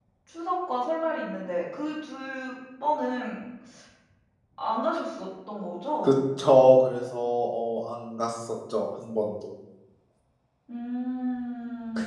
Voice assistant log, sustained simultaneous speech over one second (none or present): none